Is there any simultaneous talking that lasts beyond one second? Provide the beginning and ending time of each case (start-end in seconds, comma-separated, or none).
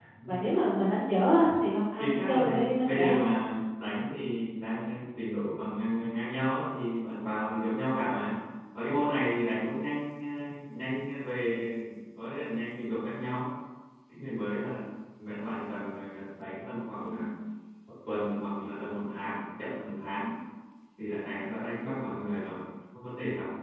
2.0-3.2